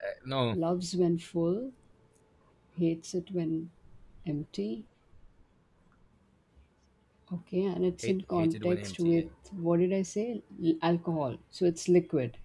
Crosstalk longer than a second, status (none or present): present